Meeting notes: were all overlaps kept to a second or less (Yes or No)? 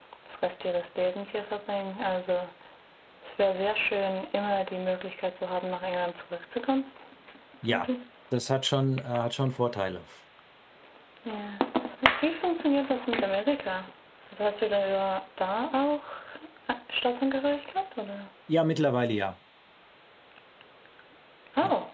Yes